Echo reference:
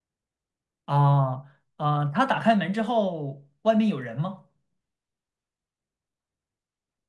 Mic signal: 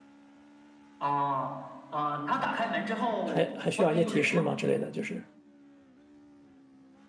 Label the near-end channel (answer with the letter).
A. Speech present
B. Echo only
A